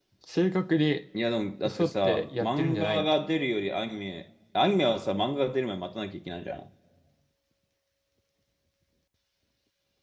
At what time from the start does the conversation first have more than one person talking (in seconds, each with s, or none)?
1.6 s